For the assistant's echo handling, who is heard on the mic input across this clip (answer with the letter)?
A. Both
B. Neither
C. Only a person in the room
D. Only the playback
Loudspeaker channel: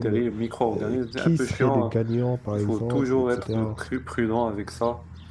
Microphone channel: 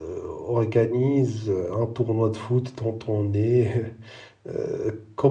C